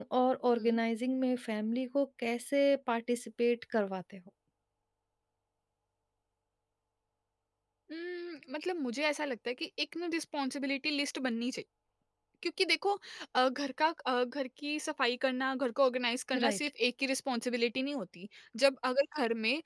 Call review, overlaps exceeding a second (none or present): none